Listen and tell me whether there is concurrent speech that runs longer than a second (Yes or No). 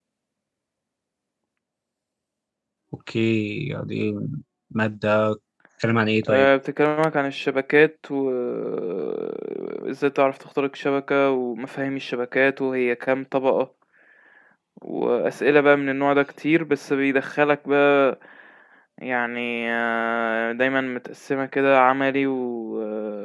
No